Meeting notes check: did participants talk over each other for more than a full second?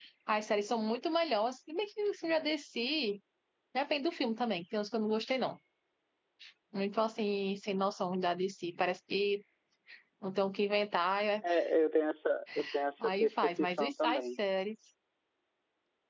Yes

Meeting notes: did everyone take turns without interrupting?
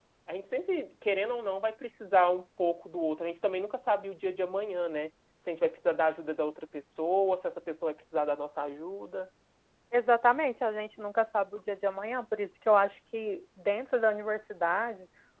Yes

